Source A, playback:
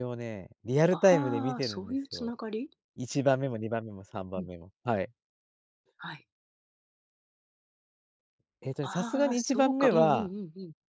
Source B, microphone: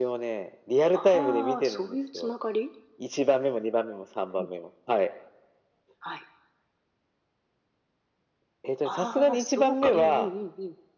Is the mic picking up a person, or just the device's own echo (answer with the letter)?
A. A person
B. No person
B